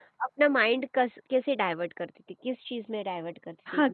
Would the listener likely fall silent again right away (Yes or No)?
No